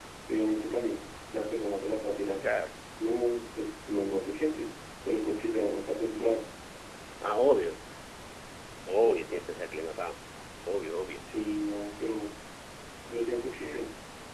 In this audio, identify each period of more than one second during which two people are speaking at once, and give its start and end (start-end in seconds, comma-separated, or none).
none